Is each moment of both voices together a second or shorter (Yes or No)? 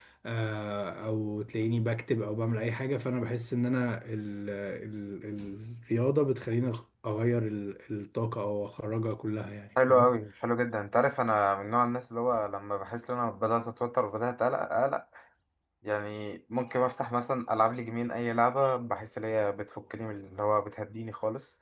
Yes